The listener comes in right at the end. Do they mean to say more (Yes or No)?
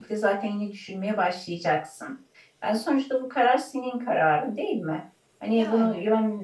No